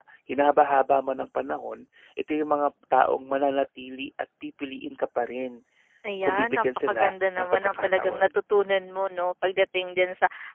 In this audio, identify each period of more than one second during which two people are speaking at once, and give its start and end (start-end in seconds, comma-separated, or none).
6.2-8.3